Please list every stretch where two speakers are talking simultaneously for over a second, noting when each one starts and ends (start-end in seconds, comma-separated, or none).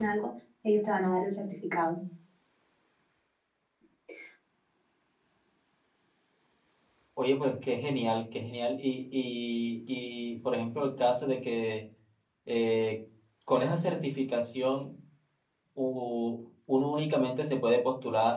none